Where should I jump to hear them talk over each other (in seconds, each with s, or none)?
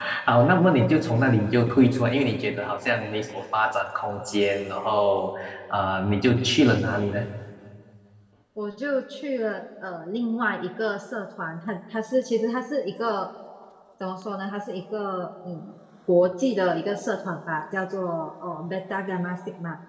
none